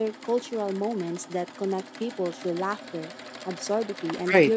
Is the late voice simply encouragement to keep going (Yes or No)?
No